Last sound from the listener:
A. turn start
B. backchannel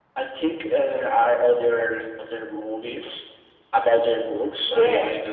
A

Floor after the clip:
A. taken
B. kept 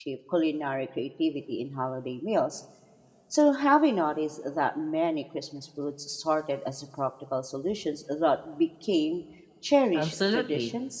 A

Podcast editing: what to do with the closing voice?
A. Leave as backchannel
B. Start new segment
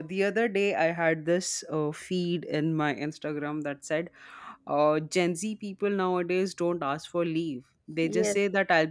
A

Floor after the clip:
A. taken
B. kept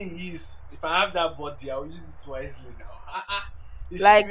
B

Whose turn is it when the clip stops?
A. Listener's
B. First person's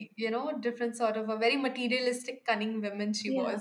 A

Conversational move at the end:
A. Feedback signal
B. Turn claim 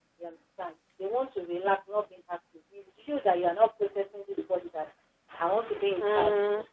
A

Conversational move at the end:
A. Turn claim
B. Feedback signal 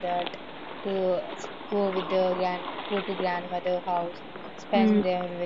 B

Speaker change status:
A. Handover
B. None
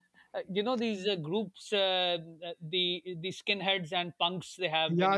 A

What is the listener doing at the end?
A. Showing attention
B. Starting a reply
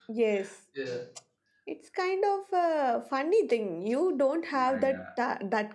A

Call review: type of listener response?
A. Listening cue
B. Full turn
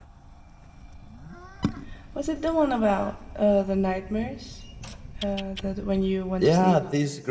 B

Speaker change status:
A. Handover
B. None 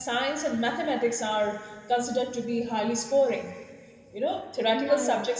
B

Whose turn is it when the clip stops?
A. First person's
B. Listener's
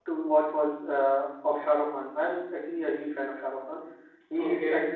A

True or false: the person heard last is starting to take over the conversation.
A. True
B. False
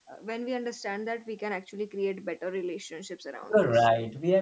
A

